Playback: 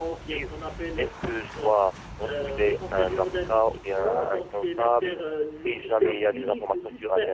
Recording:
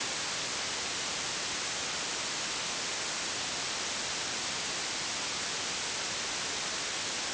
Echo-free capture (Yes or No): Yes